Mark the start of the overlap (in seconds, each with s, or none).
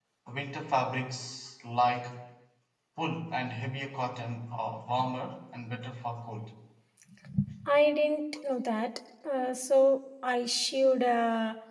none